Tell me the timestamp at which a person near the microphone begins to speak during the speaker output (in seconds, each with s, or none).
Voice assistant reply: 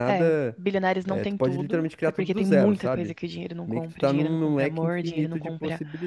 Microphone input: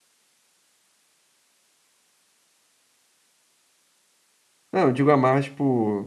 4.7 s